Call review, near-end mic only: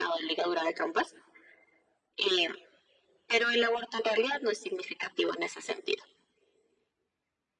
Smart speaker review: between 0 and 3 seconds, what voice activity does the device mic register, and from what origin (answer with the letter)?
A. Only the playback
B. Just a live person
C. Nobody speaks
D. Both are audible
A